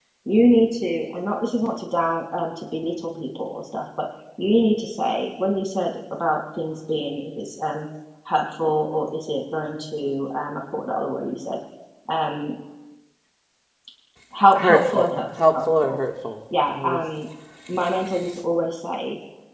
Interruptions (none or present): present